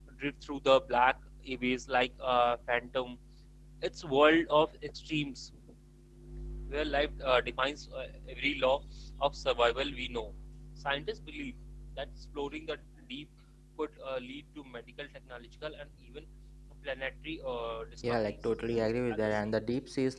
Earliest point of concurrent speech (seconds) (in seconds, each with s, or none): 18.0 s